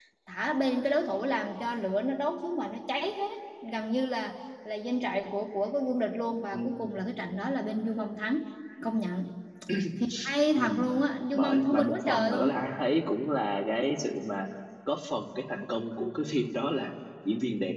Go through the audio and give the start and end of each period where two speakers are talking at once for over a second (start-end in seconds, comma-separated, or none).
11.3-12.6